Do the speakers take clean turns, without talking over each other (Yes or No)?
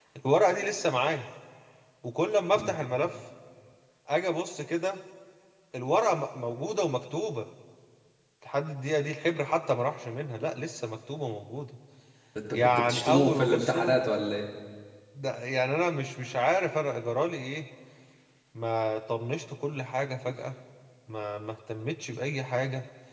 No